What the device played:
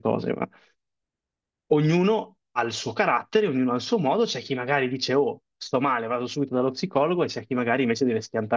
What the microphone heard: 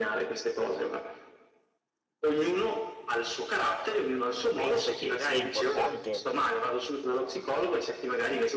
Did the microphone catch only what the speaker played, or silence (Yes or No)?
No